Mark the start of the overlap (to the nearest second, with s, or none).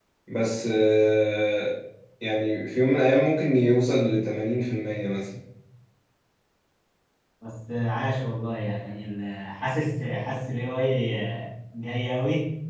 none